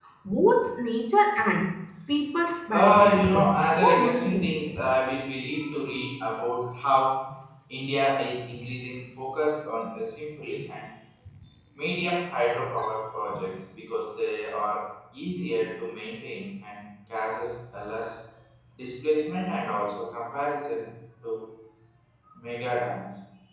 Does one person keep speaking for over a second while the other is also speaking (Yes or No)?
Yes